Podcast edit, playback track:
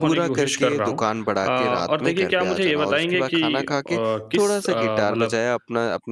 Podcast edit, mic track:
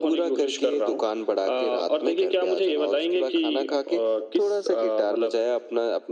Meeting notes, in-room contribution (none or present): none